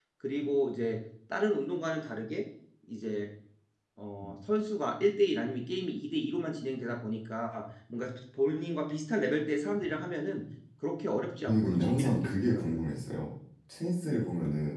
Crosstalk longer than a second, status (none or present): present